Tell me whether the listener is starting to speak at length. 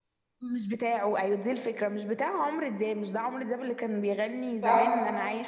No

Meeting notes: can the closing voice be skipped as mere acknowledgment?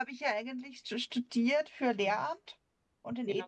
Yes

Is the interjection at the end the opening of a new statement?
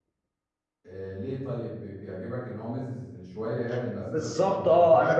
Yes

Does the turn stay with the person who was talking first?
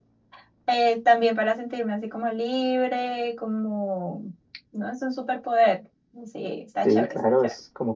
No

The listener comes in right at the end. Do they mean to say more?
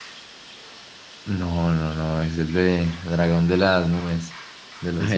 Yes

